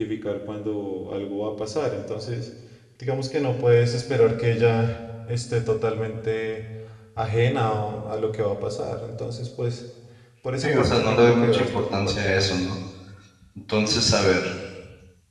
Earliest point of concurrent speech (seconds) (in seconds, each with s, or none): 10.6 s